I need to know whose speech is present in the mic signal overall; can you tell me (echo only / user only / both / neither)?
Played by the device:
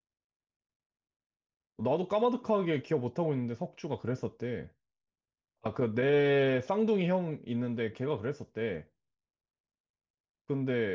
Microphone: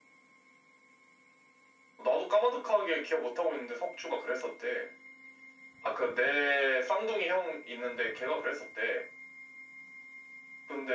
echo only